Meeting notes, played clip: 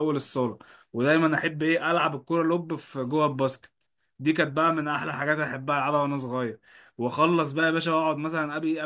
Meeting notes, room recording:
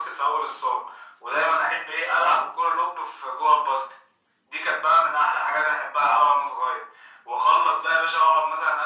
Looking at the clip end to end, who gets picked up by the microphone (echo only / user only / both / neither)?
echo only